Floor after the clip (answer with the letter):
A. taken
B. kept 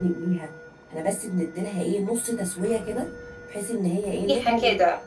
B